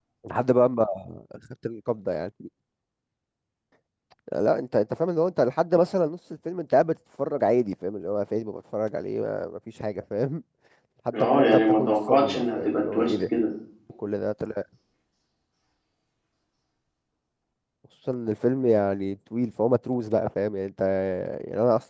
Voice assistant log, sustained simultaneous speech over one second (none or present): present